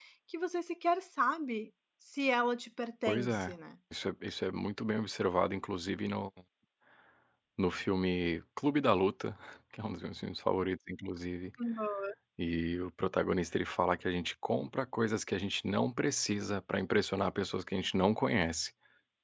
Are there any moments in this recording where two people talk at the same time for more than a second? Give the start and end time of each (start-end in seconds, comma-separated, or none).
none